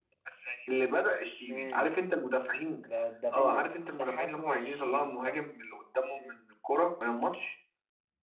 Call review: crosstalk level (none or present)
present